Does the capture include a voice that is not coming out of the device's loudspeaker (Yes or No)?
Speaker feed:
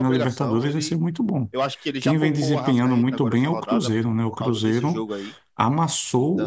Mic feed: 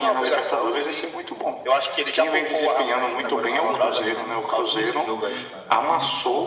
Yes